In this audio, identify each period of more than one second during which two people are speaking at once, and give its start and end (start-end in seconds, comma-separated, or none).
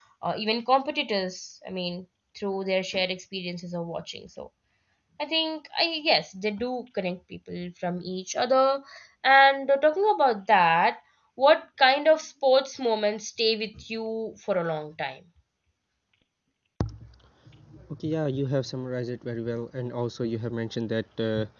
none